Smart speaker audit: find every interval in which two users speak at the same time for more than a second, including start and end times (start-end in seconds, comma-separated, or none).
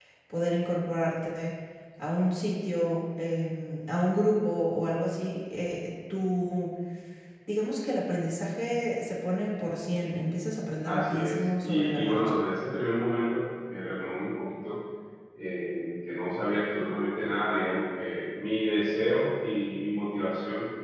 10.8-12.2